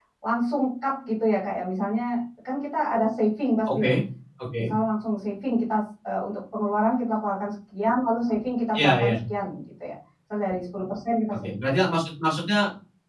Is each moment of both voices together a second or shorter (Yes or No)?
Yes